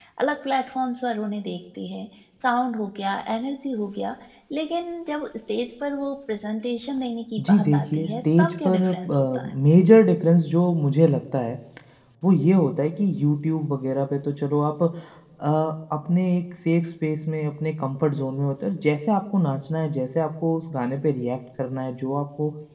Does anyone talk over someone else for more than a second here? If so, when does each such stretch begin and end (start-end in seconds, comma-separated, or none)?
7.5-9.5